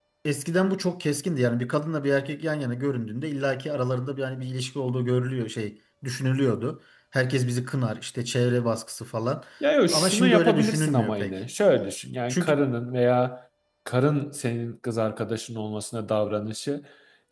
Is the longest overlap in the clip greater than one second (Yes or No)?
Yes